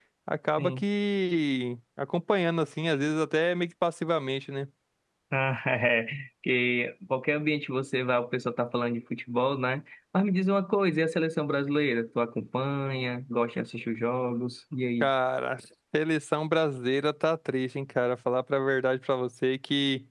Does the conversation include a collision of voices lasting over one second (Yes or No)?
No